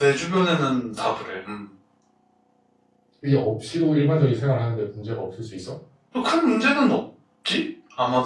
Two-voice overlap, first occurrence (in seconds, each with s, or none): none